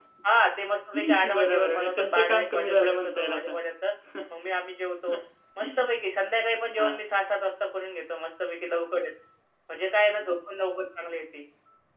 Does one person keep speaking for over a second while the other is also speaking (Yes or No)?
Yes